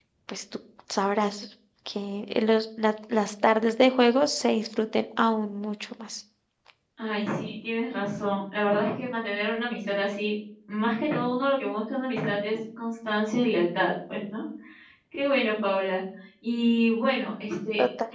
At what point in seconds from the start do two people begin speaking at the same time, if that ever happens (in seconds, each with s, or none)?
none